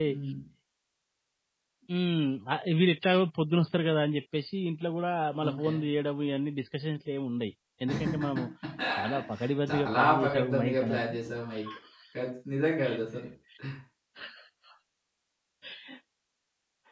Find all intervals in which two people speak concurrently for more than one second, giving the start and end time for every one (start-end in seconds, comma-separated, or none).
9.7-11.1